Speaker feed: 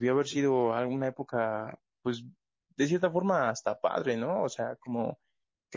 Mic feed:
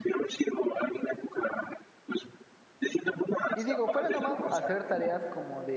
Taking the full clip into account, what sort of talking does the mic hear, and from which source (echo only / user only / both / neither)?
both